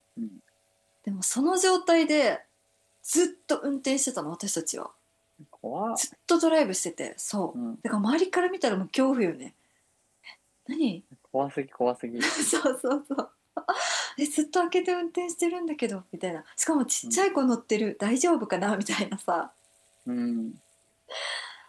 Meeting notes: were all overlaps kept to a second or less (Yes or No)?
Yes